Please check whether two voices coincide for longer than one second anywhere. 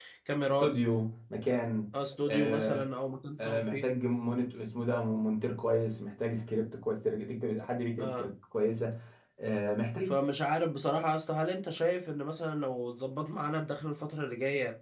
No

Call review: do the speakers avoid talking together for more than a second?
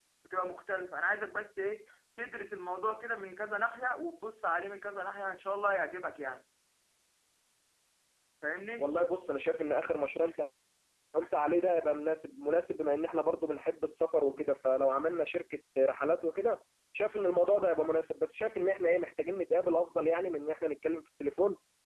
Yes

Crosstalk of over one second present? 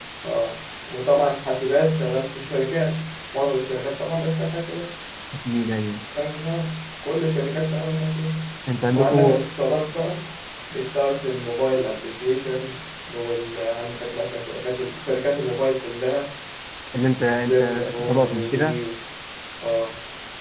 Yes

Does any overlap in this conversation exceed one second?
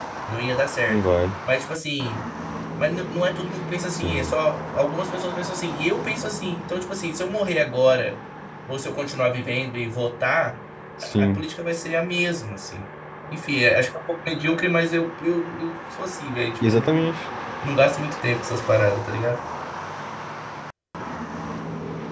No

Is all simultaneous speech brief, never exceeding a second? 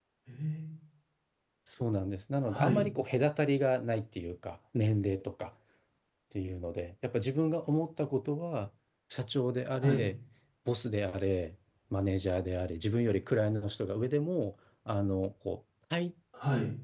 Yes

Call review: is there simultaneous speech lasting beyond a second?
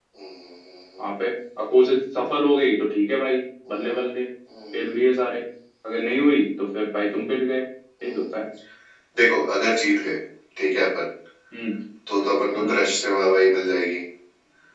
No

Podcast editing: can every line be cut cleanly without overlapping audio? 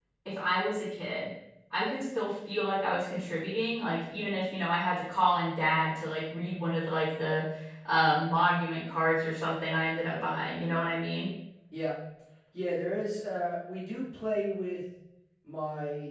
Yes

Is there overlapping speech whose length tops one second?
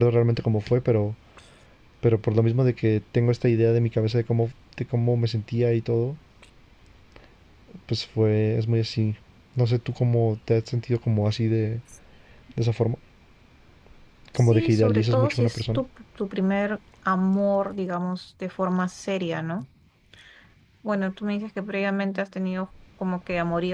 Yes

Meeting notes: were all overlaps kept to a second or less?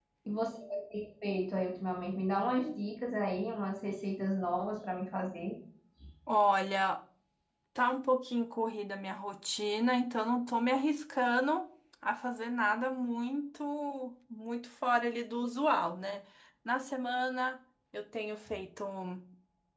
Yes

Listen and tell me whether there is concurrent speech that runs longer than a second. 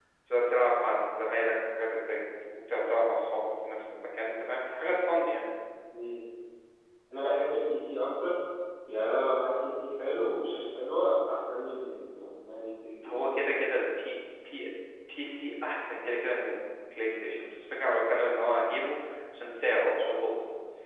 No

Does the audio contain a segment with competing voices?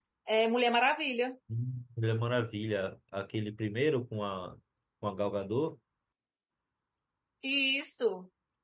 No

